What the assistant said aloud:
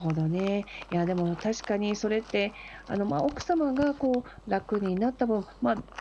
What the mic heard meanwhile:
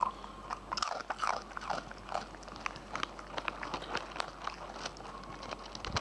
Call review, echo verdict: none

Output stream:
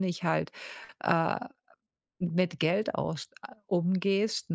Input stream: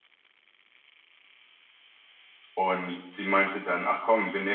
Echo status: none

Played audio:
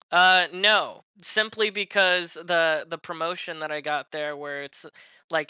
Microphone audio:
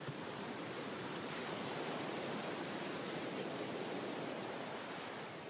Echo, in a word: none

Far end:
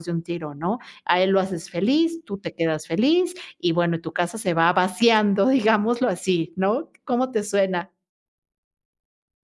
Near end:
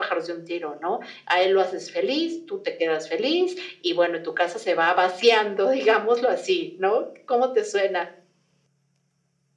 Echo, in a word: present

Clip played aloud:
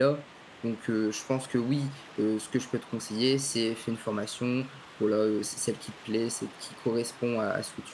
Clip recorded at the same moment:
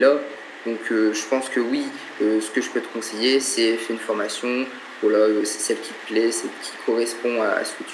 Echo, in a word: present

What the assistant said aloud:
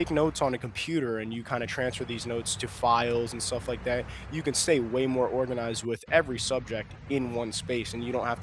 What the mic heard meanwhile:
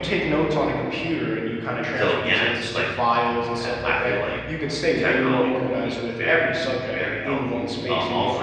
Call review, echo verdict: present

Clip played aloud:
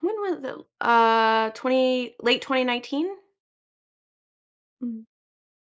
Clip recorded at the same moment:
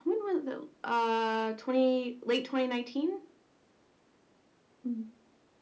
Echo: present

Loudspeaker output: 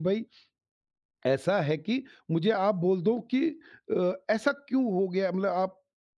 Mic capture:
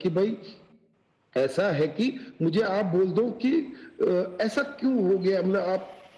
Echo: present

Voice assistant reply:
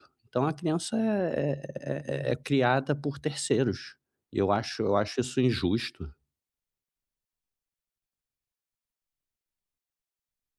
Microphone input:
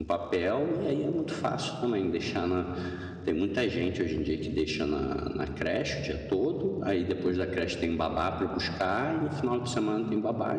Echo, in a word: none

